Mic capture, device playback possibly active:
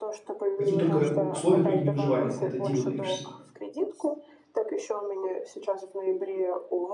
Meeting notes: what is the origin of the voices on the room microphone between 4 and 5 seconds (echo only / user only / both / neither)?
echo only